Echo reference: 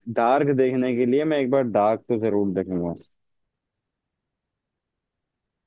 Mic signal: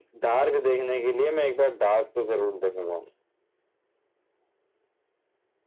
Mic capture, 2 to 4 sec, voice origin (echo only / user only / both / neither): echo only